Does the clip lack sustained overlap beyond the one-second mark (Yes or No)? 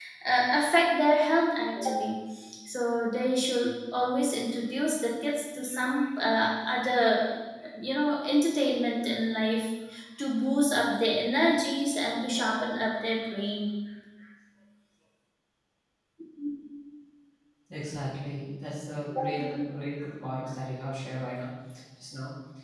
Yes